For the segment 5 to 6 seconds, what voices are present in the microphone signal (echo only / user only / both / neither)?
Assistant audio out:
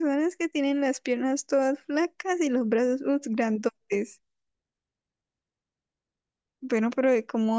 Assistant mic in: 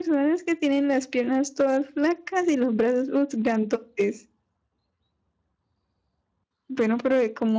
neither